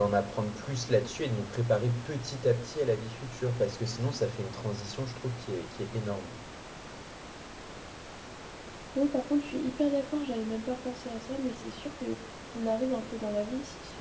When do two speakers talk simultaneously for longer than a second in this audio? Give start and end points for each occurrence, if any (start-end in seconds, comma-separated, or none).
none